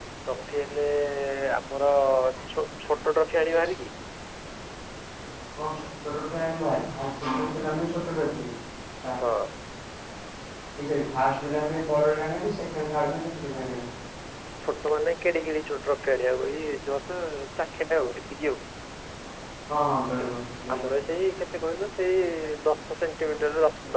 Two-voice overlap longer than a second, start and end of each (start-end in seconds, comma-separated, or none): none